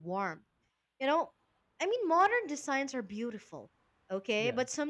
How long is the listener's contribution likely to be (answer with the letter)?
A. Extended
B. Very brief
B